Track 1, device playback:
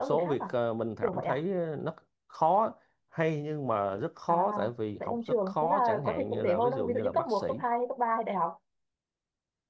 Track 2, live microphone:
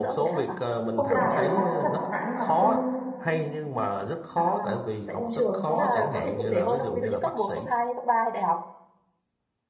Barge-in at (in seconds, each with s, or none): 0.9 s